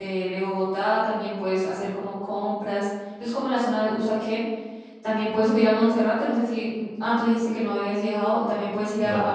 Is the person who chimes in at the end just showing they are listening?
Yes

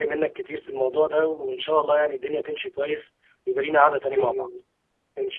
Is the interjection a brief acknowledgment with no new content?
No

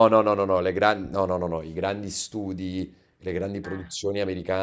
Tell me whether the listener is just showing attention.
Yes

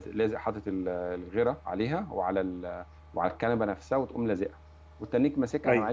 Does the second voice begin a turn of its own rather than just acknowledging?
No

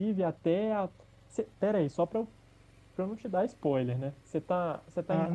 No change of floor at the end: No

